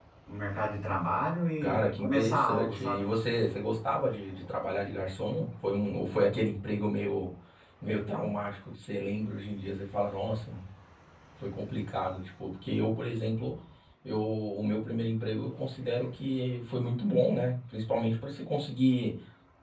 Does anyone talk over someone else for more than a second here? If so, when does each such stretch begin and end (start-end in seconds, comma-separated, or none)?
1.6-3.0